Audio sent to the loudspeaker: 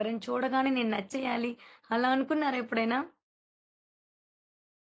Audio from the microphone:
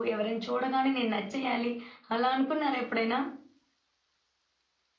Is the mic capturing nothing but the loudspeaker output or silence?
Yes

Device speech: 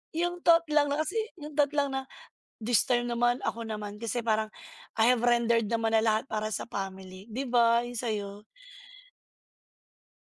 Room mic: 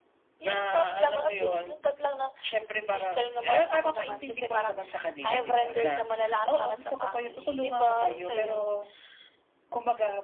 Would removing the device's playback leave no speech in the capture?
No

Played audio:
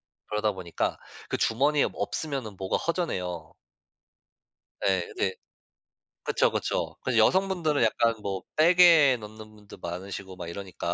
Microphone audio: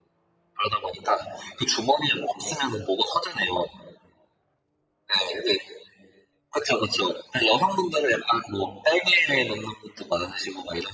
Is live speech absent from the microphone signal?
Yes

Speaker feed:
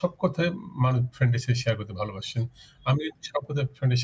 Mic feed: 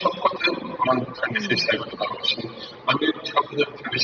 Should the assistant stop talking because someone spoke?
Yes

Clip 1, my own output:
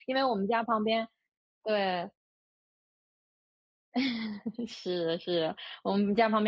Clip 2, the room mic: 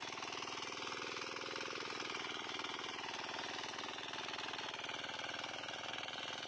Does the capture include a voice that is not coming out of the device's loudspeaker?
No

